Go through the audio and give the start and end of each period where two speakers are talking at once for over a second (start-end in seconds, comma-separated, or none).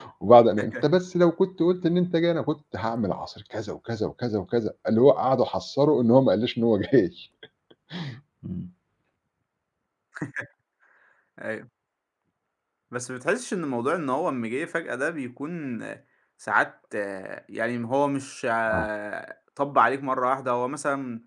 none